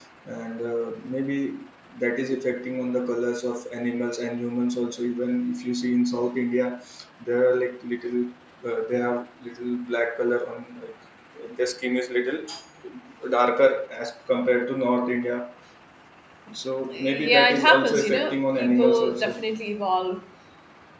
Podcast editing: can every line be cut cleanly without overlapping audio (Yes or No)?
No